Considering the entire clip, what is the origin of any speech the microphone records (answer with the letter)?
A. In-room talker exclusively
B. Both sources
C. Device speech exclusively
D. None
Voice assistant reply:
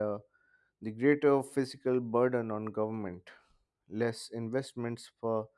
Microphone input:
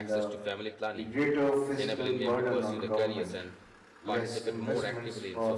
B